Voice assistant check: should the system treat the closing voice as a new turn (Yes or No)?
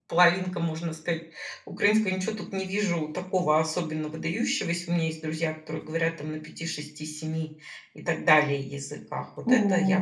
Yes